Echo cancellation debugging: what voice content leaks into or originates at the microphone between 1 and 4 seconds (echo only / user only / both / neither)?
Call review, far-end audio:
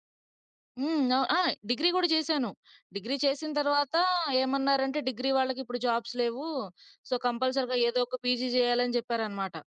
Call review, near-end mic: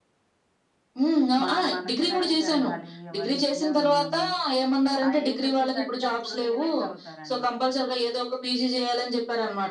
both